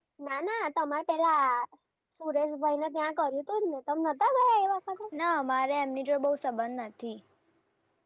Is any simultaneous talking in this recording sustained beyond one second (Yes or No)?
No